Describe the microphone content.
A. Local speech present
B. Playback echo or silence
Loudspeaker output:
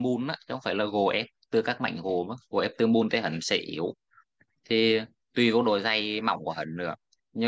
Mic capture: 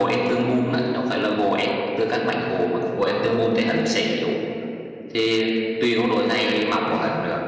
B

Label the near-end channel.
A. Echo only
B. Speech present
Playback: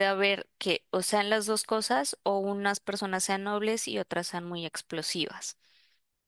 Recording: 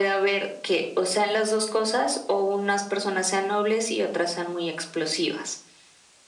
A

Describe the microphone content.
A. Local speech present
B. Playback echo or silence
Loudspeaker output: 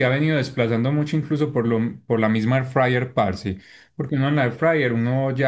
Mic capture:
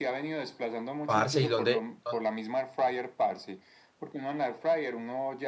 A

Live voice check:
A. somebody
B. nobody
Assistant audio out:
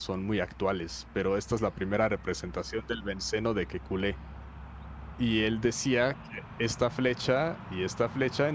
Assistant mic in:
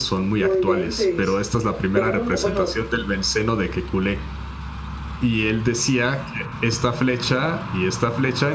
A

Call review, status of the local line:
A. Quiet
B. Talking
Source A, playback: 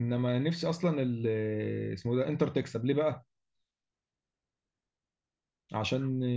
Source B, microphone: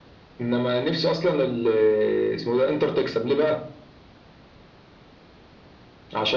A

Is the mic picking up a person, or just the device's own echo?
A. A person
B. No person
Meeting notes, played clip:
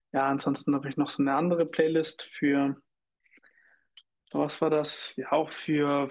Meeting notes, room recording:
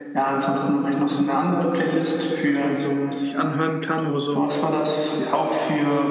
A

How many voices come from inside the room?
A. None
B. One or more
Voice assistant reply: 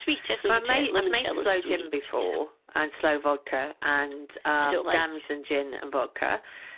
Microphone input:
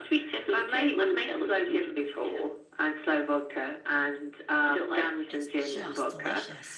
B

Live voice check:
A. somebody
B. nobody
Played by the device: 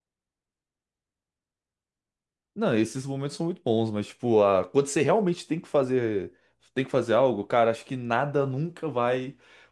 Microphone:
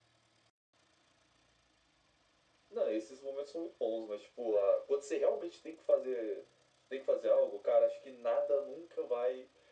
B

